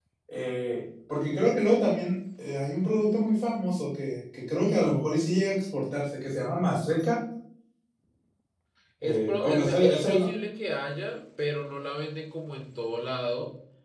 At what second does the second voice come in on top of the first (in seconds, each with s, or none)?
9.0 s